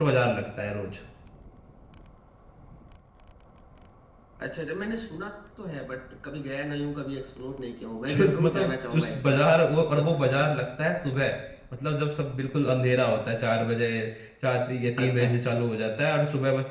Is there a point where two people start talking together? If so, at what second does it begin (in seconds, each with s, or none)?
8.1 s